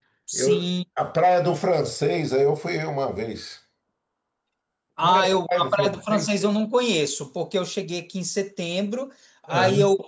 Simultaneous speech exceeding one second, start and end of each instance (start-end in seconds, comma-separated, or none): 5.0-6.3